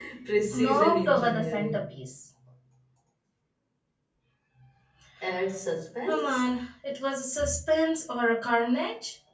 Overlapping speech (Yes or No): Yes